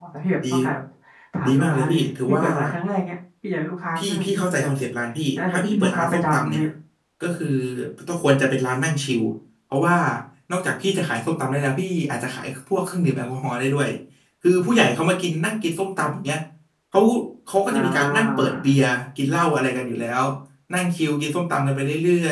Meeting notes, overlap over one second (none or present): present